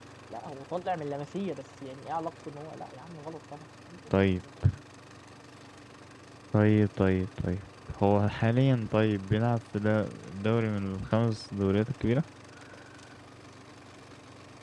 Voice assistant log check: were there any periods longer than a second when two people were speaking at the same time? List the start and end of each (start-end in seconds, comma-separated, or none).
none